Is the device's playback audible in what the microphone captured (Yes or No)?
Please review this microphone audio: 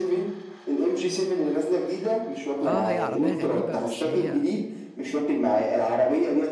Yes